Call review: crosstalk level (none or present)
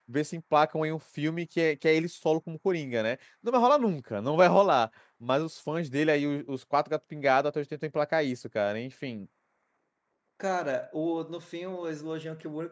none